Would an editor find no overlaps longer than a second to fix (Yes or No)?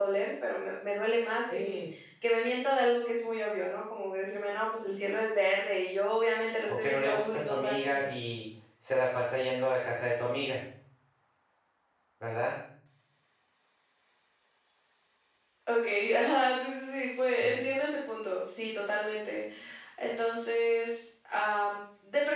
No